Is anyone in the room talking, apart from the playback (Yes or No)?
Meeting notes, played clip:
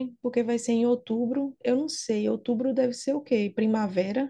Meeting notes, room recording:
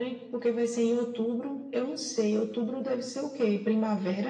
No